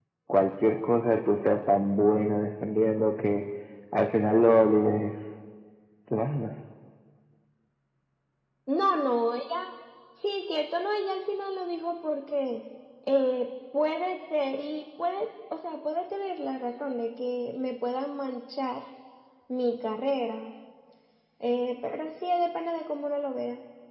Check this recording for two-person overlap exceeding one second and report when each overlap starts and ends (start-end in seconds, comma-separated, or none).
none